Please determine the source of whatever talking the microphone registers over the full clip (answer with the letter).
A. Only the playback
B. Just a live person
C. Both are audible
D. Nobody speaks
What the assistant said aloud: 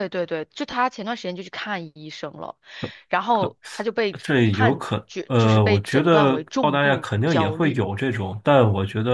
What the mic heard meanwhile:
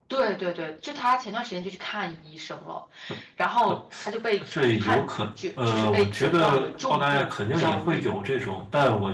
A